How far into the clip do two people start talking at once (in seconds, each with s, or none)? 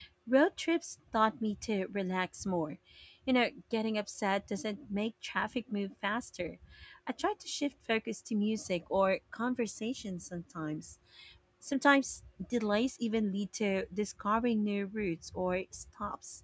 none